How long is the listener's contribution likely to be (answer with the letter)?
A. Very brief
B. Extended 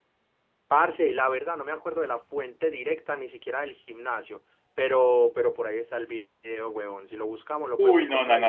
B